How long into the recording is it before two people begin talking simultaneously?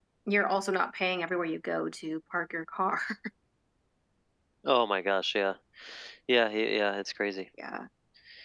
none

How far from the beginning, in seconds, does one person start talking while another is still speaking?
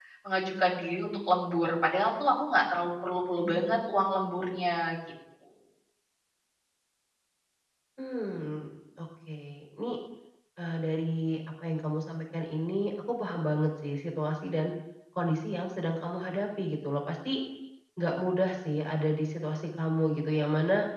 none

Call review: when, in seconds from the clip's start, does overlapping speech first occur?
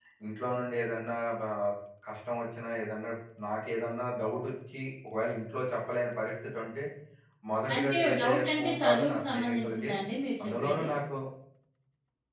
7.7 s

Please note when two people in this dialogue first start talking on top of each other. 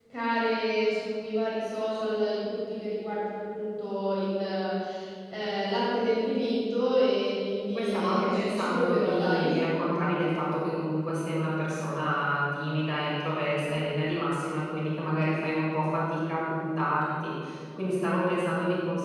7.8 s

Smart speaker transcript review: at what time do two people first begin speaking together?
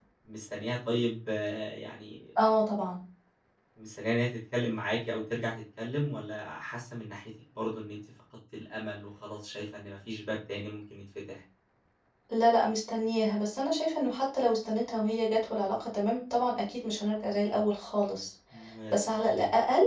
none

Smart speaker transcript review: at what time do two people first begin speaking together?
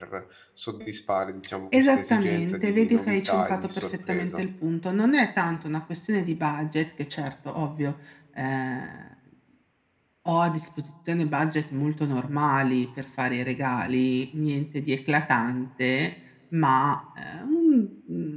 1.7 s

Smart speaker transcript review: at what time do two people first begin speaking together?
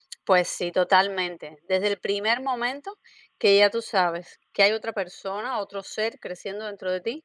none

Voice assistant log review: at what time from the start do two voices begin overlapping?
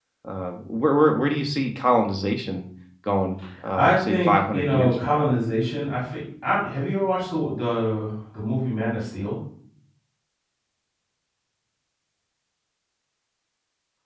3.7 s

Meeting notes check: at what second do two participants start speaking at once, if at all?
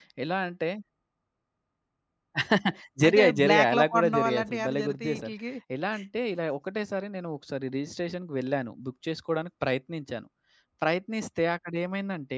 3.1 s

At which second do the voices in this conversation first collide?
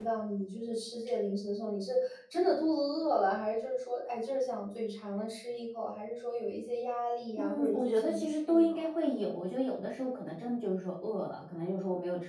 7.4 s

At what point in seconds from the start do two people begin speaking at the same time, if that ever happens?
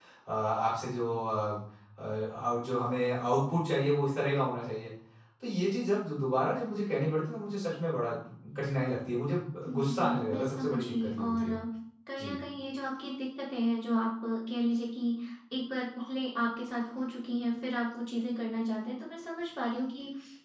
9.7 s

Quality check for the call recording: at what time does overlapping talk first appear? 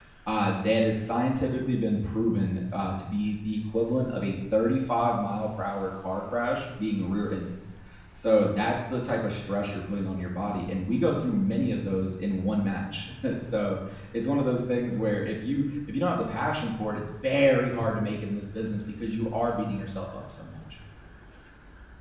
none

